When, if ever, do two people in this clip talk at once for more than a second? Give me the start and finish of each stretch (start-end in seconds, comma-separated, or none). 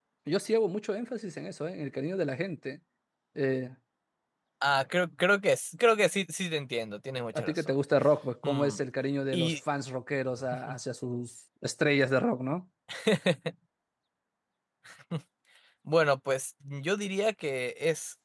none